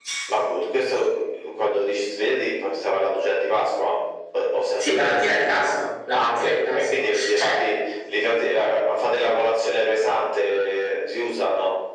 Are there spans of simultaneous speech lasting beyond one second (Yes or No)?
Yes